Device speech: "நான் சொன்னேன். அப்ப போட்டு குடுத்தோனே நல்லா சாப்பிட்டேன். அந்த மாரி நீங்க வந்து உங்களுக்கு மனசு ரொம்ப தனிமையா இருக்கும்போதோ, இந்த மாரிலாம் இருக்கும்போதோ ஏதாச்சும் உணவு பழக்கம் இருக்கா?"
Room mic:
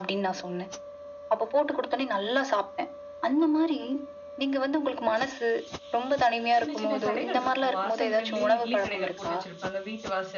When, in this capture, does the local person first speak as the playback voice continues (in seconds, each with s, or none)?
6.6 s